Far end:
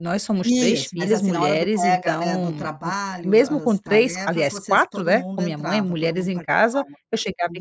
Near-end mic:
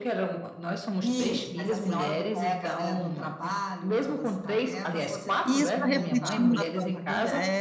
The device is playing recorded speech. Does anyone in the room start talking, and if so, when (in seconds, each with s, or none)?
5.4 s